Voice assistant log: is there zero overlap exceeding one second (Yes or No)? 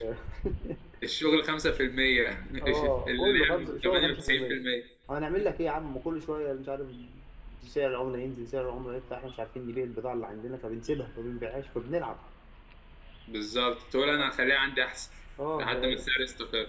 No